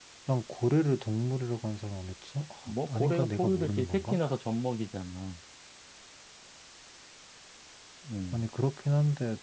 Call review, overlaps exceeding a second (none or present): present